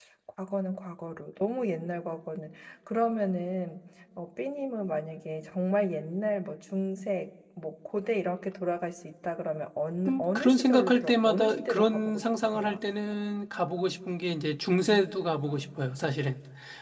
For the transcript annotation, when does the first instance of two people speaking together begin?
10.1 s

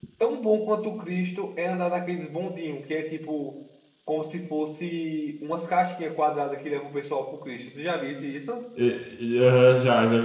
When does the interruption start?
none

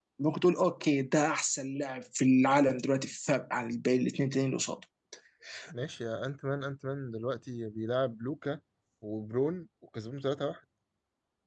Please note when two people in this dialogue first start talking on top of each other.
none

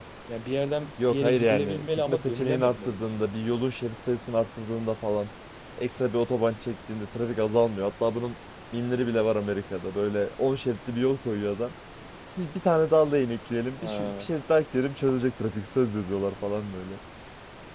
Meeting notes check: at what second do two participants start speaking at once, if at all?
1.1 s

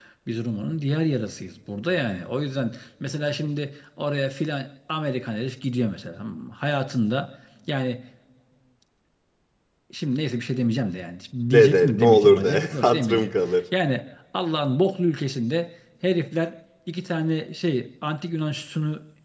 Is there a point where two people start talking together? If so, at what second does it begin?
11.5 s

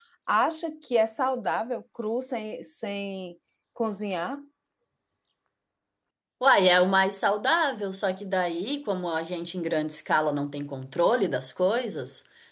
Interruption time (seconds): none

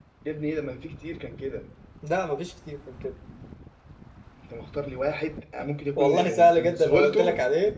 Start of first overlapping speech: 6.0 s

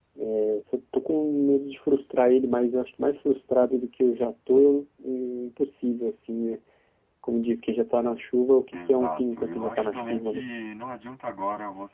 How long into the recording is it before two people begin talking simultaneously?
8.7 s

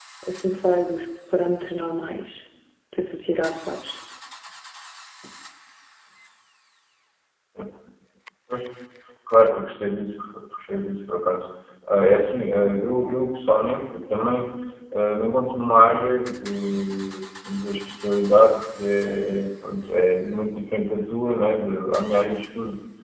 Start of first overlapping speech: none

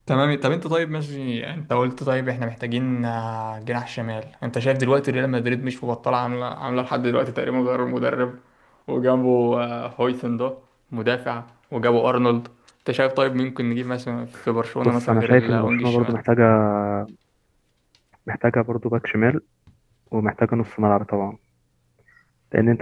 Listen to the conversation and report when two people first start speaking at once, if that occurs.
14.8 s

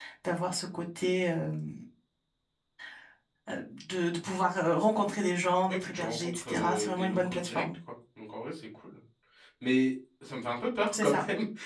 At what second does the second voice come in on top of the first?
5.7 s

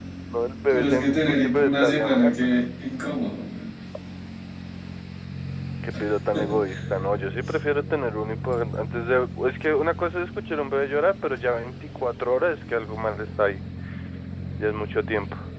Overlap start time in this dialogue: 0.7 s

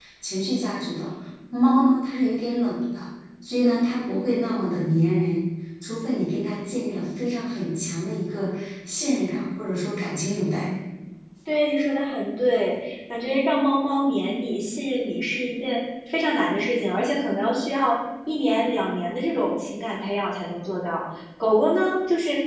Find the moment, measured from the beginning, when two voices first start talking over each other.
none

